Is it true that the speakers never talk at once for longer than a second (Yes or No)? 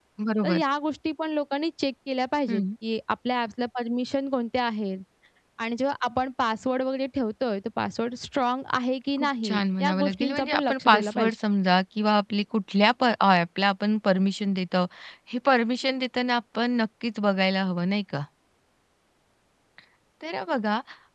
No